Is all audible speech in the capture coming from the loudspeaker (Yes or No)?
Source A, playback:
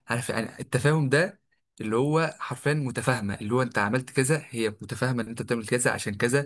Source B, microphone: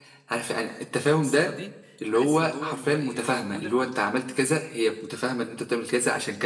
No